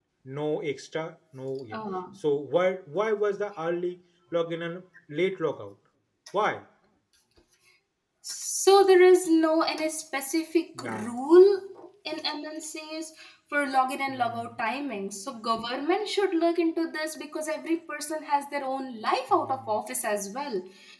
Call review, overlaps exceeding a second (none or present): none